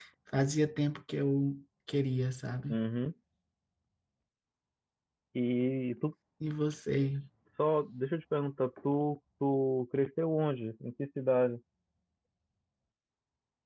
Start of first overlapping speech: none

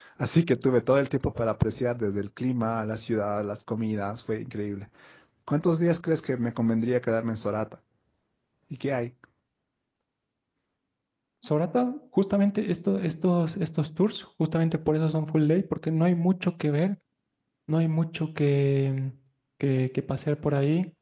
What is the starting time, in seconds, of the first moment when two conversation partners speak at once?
none

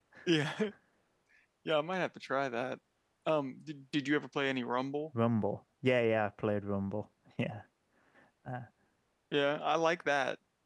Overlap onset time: none

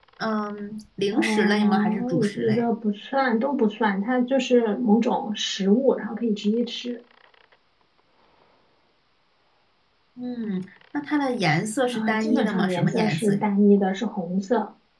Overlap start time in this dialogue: 1 s

